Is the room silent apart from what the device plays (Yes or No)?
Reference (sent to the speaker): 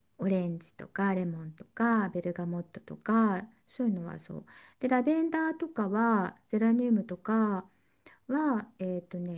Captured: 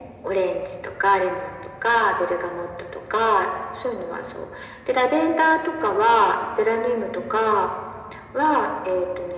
Yes